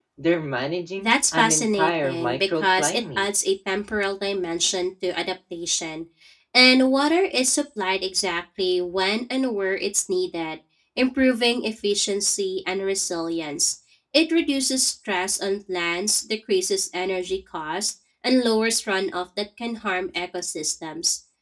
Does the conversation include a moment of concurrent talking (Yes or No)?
Yes